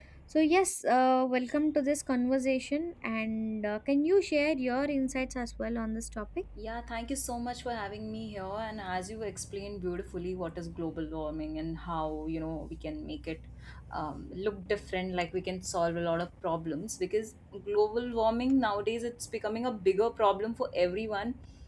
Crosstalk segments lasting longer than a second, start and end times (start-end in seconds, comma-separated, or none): none